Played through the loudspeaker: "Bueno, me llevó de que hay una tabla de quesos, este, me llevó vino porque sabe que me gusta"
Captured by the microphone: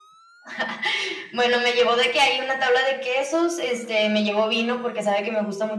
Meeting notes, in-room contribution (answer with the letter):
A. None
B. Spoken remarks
A